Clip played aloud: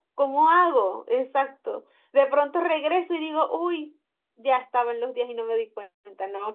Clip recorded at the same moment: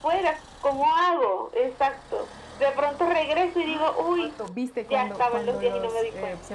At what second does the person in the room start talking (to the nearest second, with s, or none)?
4 s